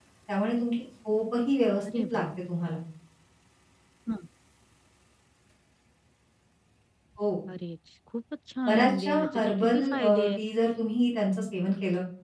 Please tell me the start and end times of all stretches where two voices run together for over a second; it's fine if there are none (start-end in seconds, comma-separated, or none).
8.7-10.4